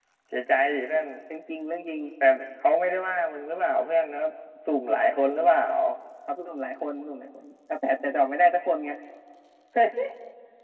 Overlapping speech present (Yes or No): No